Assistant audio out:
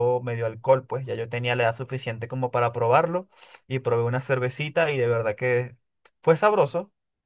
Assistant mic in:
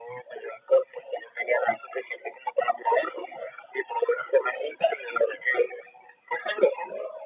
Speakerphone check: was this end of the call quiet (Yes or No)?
Yes